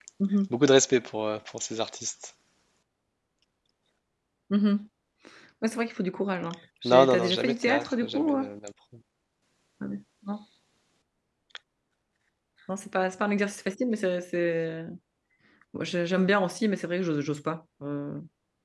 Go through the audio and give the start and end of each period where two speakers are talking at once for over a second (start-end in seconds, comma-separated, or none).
6.9-8.4